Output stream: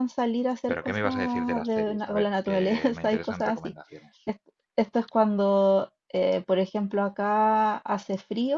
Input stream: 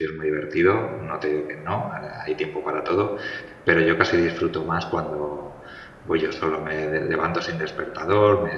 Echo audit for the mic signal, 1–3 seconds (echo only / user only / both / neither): user only